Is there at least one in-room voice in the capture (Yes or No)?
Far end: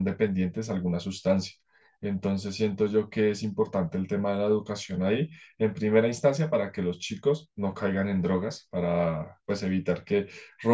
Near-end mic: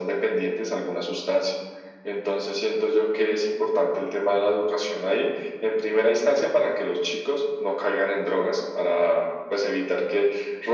No